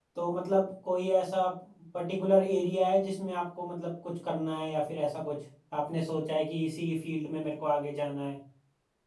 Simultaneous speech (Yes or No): No